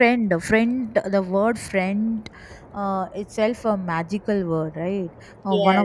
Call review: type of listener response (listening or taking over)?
listening